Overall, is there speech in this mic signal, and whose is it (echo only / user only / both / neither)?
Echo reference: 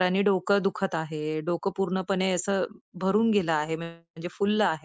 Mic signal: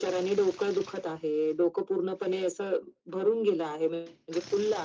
echo only